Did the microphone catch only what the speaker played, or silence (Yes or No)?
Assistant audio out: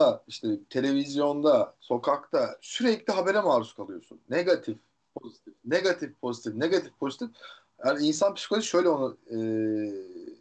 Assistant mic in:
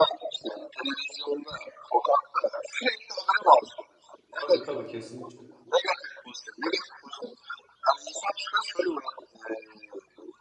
No